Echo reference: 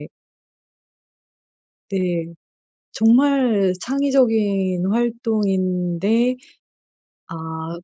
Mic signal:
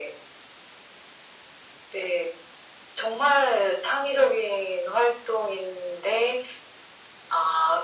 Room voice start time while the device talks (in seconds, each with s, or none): none